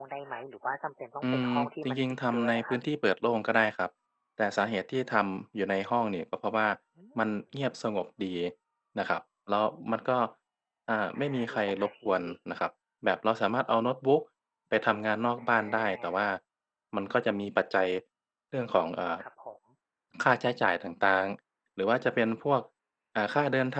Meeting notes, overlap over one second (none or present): present